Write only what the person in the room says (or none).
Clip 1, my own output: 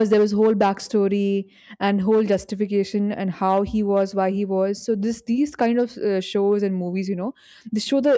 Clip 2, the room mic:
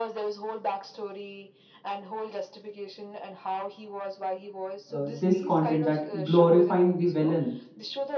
uh, this content that glorifying the villain